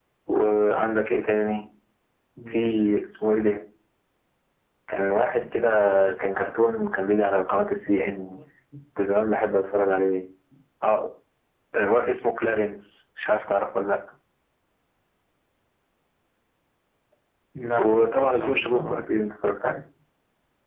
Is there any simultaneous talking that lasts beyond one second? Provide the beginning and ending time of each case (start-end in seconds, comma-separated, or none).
17.8-19.0